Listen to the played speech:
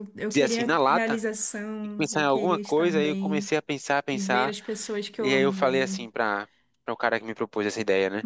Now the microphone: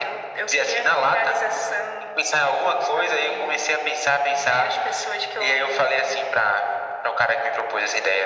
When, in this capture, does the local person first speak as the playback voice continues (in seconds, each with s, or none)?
none